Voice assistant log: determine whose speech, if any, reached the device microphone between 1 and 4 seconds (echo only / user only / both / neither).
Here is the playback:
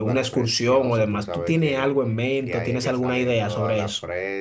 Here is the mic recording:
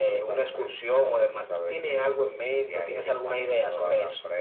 echo only